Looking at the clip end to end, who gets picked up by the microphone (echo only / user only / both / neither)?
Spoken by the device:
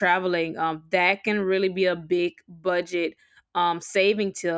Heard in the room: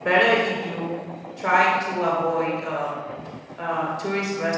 user only